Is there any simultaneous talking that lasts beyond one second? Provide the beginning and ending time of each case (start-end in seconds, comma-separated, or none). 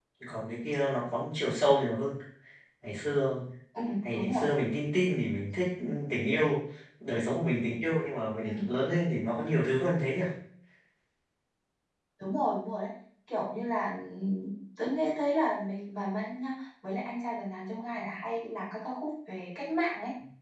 none